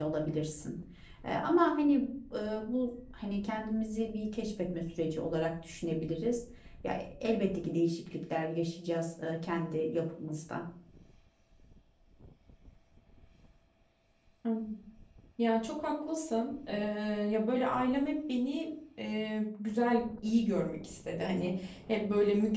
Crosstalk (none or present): none